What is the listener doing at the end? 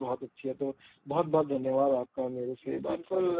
taking over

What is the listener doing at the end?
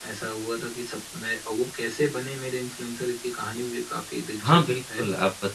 taking over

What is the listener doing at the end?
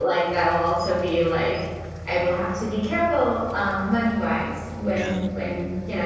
listening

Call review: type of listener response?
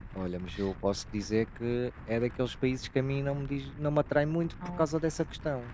listening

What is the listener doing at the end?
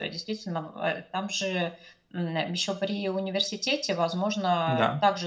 listening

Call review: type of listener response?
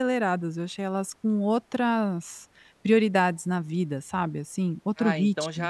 taking over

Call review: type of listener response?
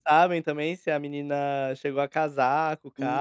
taking over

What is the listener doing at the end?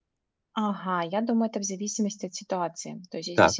listening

